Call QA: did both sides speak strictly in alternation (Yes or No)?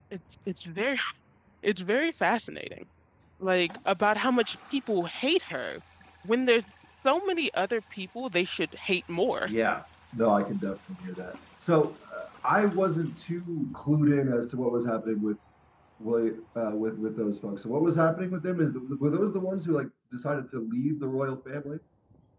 Yes